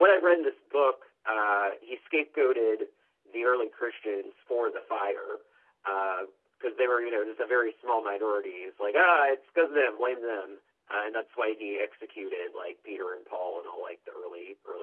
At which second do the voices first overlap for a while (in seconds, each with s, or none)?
none